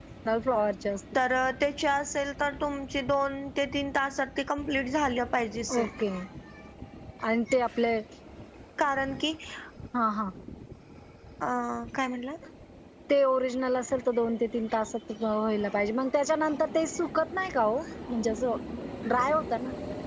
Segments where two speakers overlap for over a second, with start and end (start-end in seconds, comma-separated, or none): none